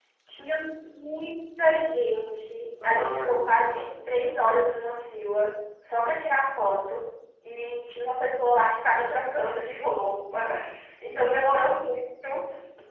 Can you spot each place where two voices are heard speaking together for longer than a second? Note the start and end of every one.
2.8-4.1

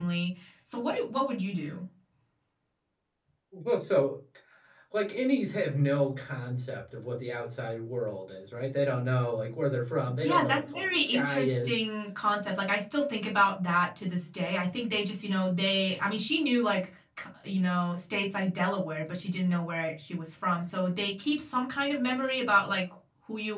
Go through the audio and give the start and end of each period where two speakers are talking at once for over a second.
10.2-11.8

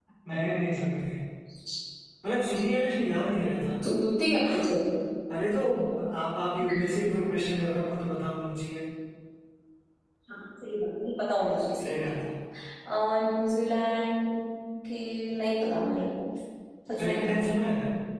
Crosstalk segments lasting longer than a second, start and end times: none

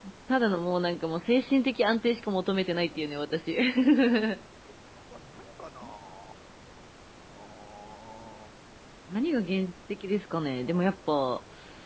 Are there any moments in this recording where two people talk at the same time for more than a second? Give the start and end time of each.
none

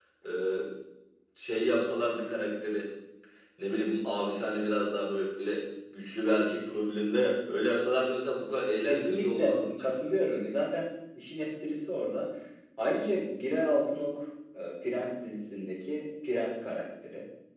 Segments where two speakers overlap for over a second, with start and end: 8.8-10.4

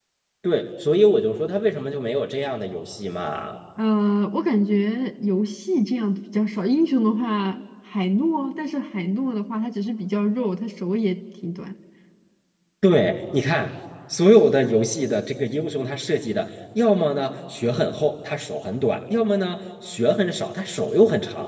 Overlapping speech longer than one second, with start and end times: none

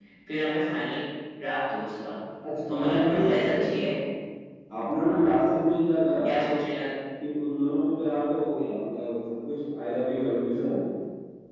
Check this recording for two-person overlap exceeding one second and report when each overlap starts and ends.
2.7-3.9

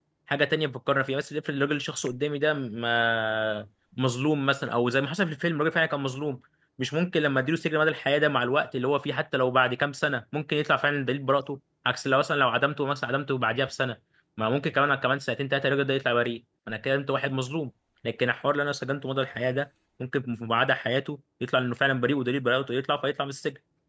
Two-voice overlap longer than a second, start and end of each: none

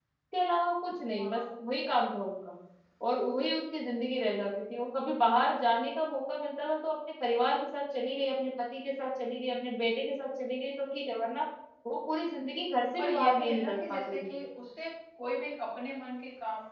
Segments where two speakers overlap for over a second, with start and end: 13.0-14.3

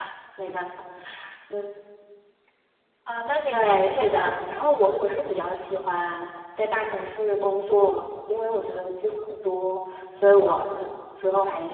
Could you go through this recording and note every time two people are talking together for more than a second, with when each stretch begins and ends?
3.5-5.0

